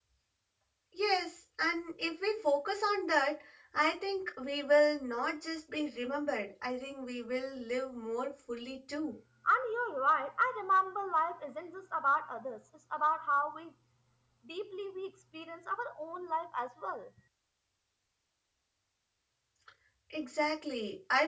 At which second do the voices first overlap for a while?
none

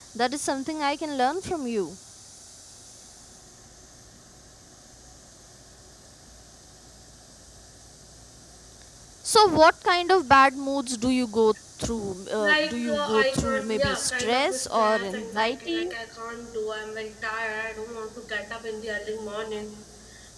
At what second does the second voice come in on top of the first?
12 s

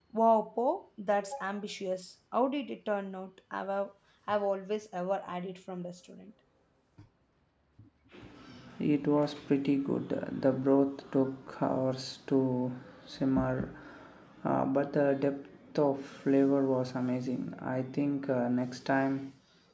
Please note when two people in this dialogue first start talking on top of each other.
none

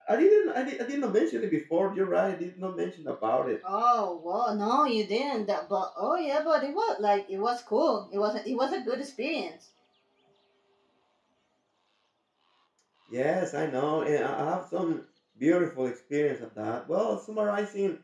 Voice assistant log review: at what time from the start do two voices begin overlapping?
none

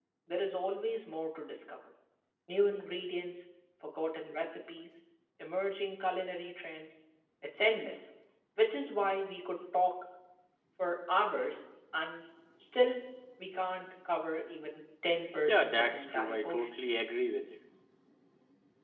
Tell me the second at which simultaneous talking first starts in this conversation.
15 s

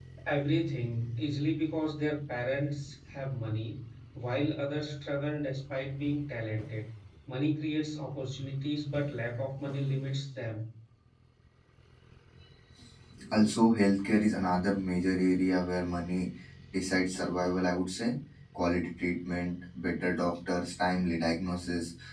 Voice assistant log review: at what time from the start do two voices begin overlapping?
none

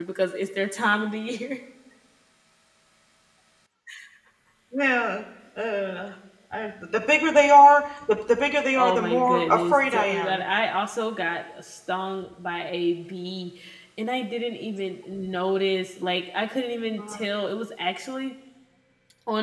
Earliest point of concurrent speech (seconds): 9 s

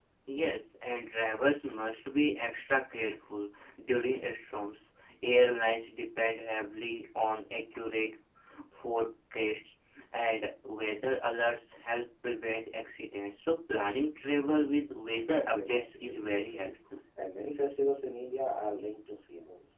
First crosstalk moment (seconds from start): 16 s

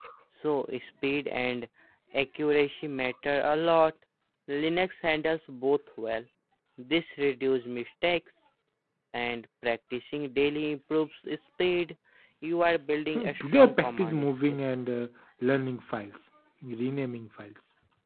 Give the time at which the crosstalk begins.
13 s

